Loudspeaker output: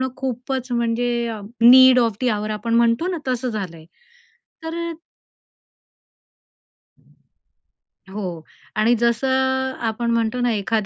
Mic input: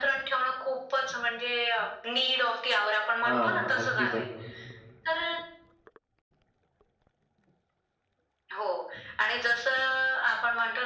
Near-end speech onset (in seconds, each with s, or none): 3.2 s